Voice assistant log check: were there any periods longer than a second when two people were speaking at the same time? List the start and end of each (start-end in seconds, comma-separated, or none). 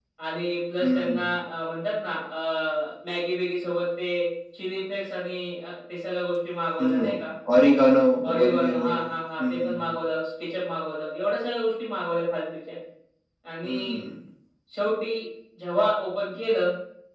8.4-10.0